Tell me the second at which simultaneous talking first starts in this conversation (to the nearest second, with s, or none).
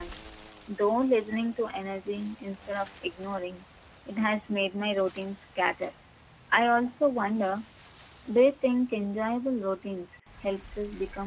none